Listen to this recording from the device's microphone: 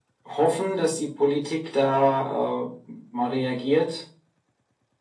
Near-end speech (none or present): none